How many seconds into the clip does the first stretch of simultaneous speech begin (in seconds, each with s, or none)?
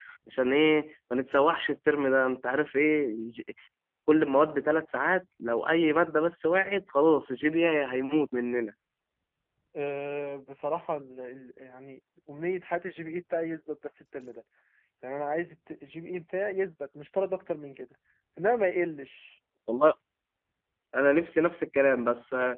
none